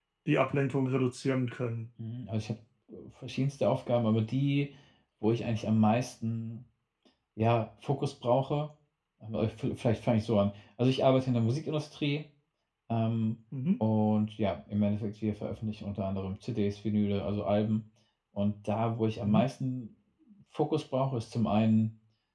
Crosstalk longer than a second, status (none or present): none